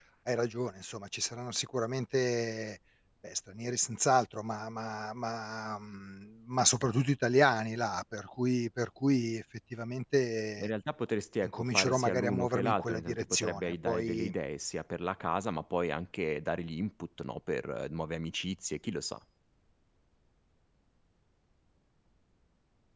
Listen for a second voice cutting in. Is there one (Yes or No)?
Yes